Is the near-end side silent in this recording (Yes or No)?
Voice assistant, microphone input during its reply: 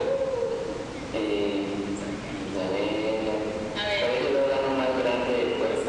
Yes